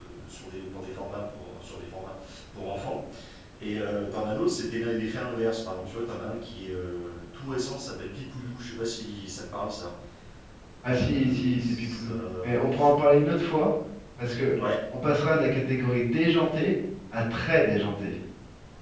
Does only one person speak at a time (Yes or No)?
No